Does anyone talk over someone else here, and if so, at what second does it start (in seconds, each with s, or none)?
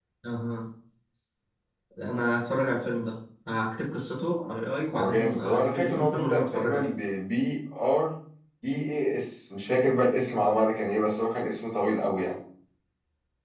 4.9 s